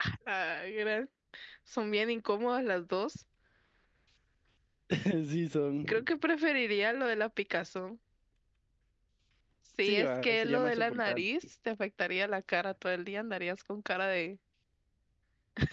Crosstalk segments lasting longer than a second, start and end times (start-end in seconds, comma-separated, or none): 9.8-11.2